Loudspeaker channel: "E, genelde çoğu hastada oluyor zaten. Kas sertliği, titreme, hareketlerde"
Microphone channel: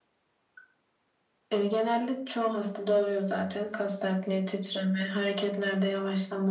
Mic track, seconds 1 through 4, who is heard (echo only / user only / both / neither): echo only